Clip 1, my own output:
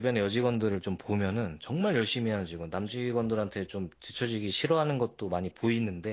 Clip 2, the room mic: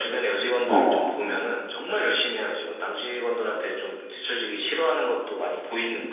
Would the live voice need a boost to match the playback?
No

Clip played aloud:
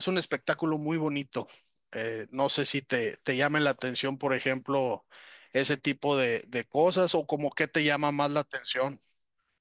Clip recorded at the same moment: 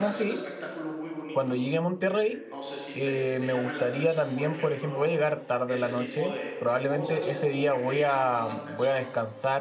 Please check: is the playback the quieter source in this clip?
Yes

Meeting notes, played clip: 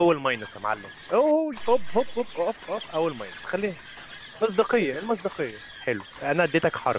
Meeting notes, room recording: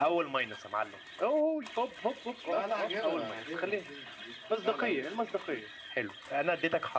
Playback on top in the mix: Yes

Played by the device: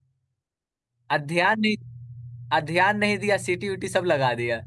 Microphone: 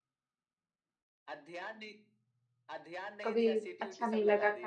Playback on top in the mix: No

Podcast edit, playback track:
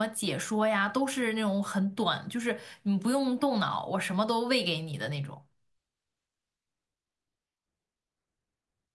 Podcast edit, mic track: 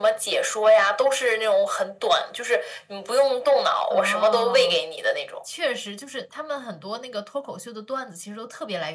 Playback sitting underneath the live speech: No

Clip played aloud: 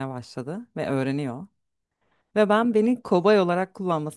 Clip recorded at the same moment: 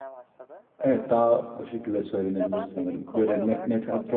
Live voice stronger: Yes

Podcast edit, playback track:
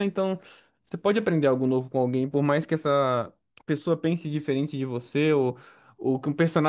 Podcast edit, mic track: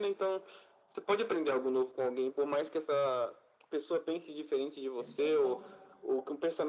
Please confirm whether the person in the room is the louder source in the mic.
No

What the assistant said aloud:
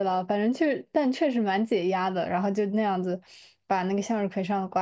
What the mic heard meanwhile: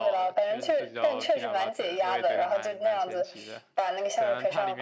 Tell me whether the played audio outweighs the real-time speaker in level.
Yes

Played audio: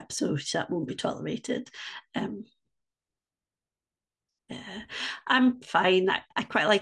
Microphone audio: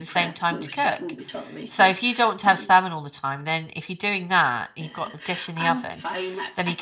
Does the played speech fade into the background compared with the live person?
Yes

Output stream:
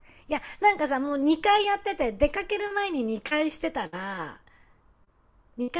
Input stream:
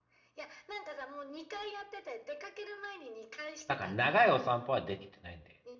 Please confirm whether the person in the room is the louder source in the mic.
Yes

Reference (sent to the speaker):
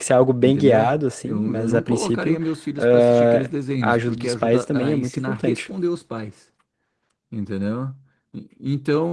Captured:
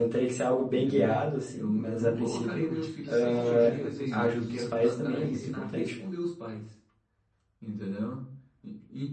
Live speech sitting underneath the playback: Yes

